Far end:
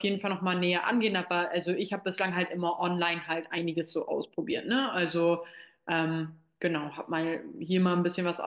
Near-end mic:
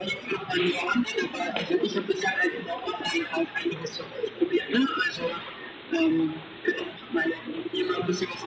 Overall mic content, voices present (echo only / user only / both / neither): echo only